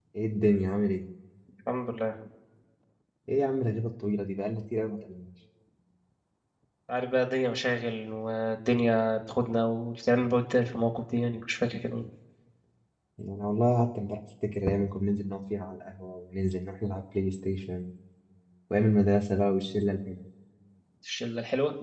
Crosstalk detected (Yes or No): No